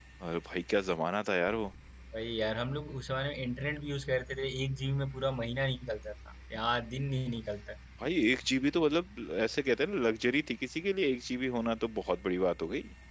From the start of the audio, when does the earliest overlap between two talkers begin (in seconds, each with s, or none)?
none